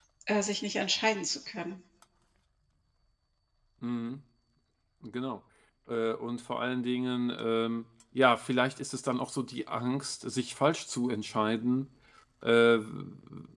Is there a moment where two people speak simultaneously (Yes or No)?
No